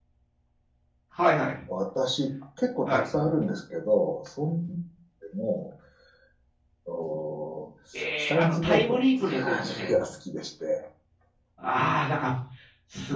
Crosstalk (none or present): present